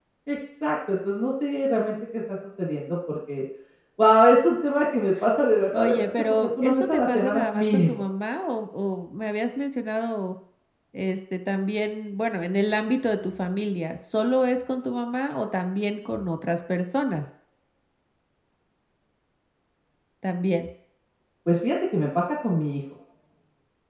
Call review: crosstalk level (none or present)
present